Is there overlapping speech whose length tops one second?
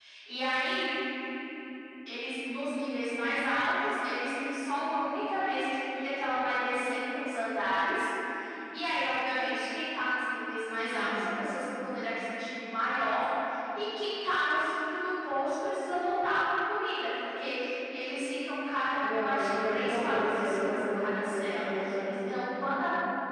Yes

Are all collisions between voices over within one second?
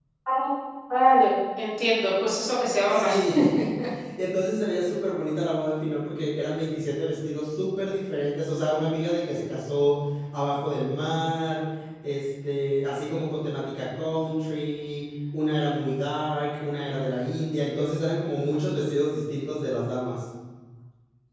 Yes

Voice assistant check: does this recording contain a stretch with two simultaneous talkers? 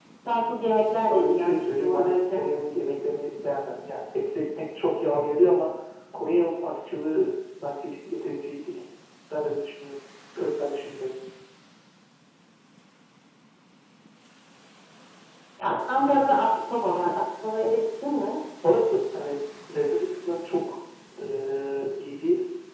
Yes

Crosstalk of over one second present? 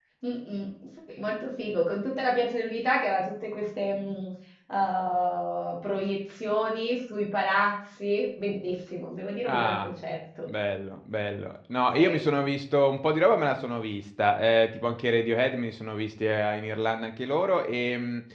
No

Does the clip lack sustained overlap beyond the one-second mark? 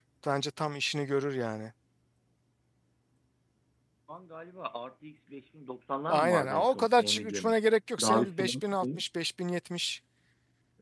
No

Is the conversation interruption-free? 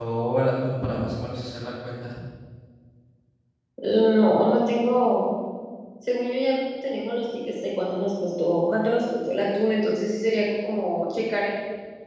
Yes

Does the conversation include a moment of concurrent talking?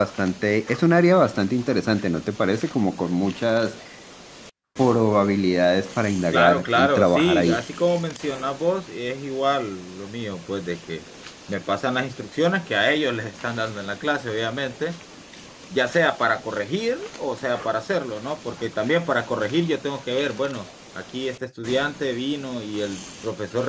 Yes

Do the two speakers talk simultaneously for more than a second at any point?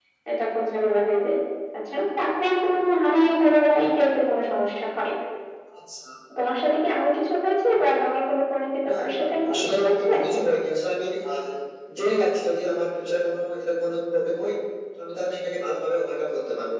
Yes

